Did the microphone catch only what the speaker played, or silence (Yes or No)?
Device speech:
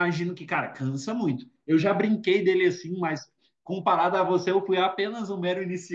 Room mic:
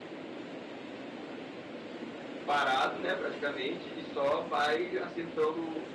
No